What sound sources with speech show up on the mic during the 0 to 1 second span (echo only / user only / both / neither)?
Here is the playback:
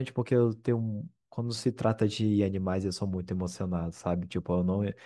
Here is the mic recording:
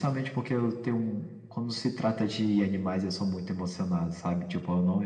echo only